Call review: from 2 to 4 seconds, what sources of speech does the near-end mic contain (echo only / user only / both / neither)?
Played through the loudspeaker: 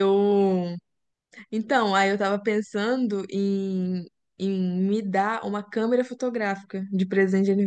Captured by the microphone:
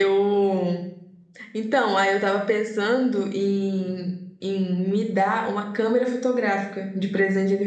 echo only